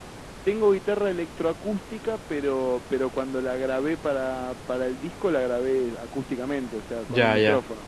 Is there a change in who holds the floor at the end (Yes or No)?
Yes